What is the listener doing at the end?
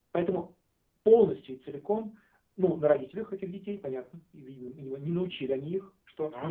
listening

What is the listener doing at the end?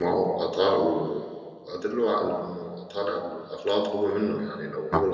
listening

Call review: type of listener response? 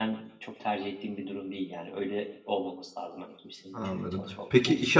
taking over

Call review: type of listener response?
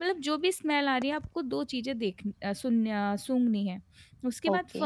listening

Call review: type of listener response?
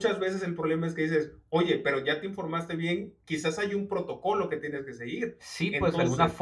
taking over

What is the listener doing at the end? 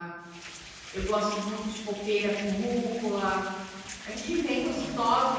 listening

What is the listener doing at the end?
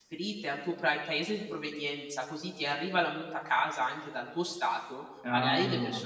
listening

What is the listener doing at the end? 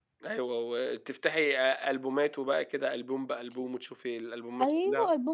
taking over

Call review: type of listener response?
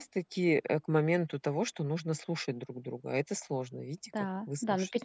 taking over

